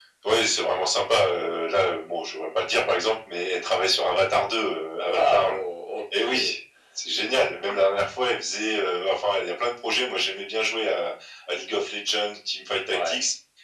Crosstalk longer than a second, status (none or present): none